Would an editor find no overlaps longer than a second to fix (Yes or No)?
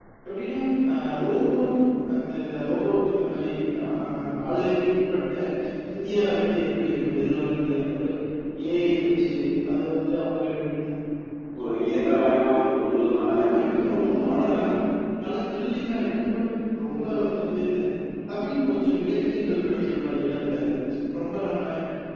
No